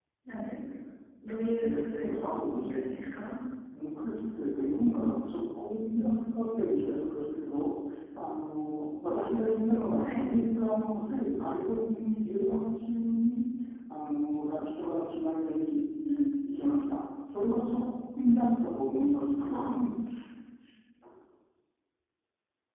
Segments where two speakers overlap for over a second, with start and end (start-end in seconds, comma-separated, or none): 1.6-2.8